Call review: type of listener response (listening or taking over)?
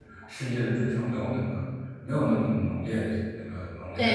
taking over